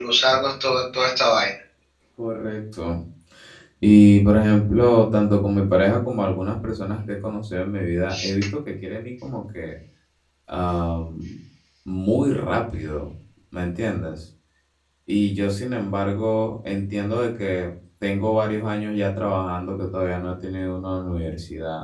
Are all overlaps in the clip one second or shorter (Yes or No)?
Yes